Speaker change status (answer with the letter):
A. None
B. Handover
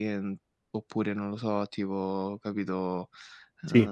A